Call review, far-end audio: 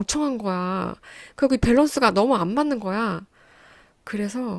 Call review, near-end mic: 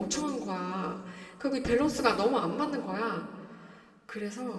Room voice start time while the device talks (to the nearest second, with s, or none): none